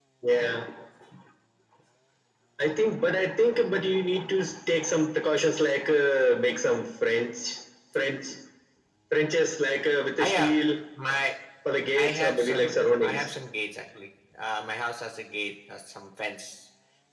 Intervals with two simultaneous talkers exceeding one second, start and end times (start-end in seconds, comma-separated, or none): 12.0-13.3